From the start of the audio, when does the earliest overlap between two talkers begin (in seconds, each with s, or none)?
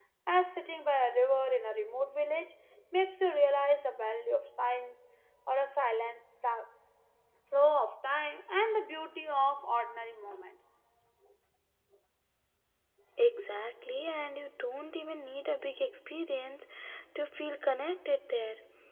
none